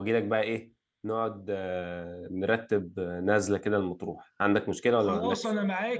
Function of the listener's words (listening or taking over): taking over